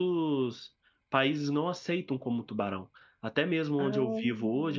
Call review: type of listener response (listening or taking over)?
listening